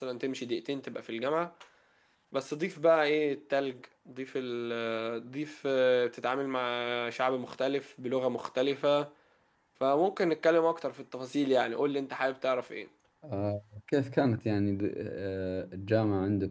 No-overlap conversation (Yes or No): Yes